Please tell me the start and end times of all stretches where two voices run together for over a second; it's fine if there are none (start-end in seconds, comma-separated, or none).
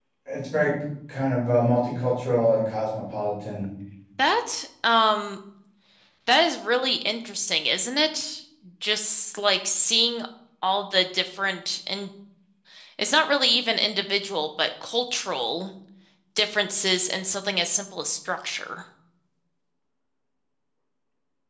none